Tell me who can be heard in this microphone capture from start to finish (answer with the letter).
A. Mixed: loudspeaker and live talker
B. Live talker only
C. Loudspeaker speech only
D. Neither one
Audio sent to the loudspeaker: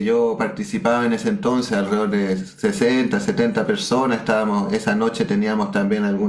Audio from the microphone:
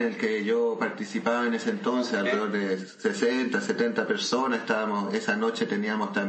A